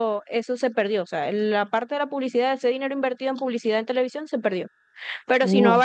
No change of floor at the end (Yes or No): Yes